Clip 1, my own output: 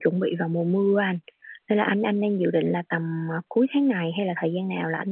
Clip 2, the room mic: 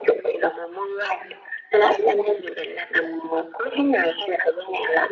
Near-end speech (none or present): none